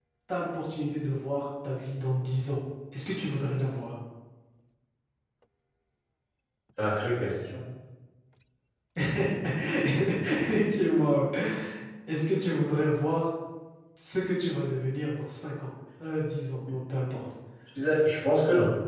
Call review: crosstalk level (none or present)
none